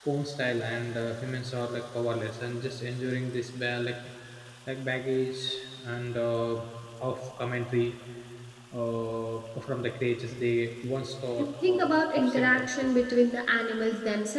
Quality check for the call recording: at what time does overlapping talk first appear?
11.4 s

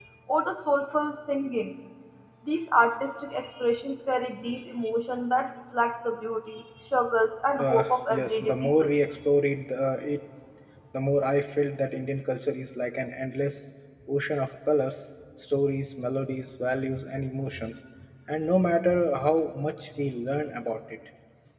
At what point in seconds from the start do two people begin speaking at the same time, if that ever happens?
7.6 s

